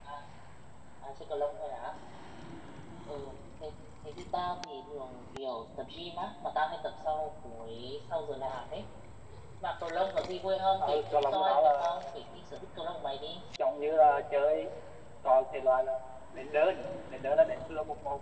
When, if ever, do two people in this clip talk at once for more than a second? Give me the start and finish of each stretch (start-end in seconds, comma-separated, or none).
10.8-12.0